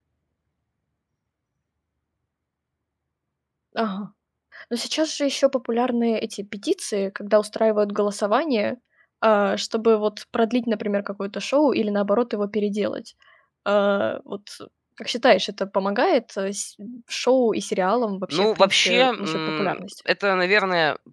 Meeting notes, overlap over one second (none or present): present